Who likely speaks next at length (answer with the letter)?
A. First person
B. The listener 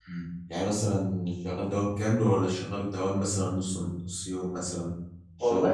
B